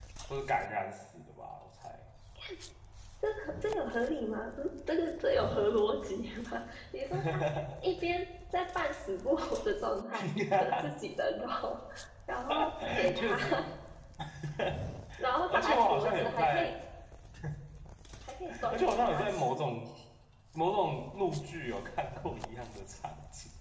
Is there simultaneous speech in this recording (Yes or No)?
Yes